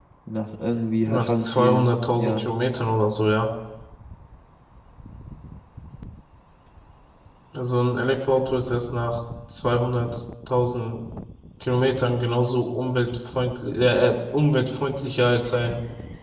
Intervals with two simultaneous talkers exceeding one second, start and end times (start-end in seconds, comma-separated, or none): 1.0-2.5